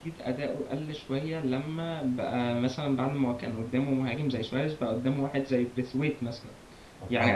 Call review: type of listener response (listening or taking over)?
listening